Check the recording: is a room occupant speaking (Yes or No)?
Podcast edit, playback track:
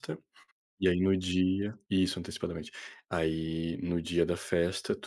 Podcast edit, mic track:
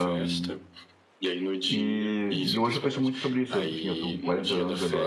Yes